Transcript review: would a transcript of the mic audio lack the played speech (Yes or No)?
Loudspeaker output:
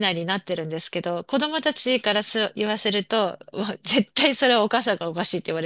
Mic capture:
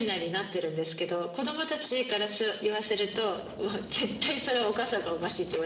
No